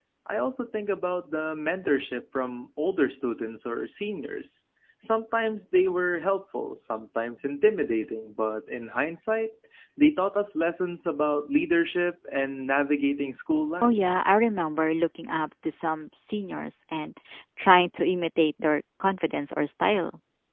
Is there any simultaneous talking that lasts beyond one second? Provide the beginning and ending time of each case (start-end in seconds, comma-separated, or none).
none